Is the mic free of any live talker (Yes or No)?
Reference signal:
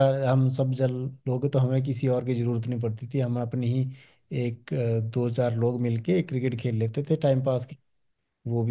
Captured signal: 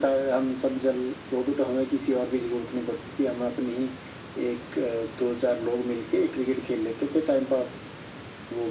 Yes